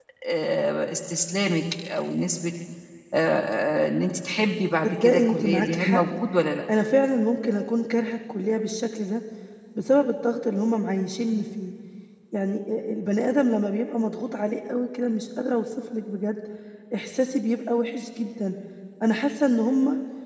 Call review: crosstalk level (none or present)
present